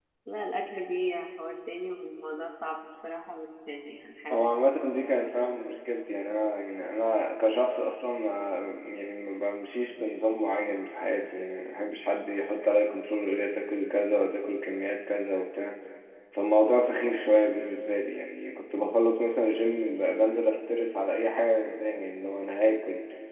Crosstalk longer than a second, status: none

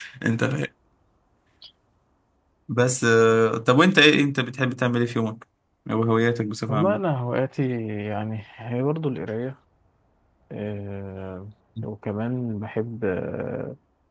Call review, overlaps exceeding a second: none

